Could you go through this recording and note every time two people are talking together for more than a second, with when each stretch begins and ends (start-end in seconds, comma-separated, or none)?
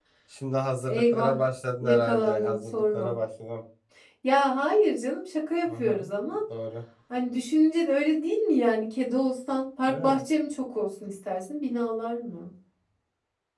1.8-3.1